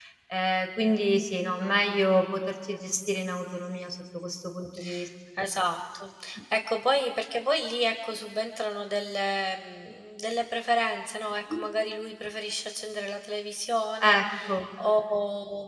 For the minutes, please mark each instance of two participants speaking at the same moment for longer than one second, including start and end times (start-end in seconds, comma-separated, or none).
none